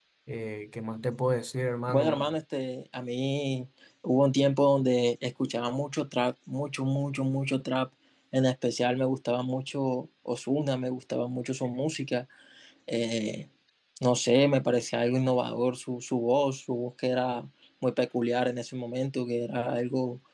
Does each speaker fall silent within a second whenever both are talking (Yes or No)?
Yes